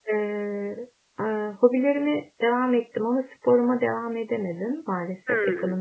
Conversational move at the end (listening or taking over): listening